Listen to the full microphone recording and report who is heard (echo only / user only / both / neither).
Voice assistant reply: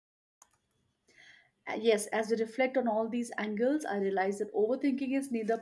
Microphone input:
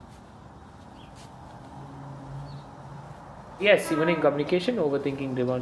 user only